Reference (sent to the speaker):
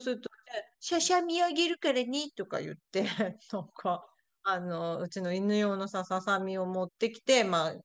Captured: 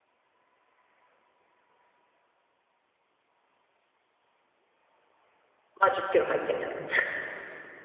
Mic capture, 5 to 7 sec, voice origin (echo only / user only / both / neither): user only